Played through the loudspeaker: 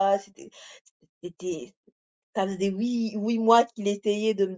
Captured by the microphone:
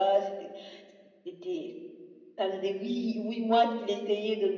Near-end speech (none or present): none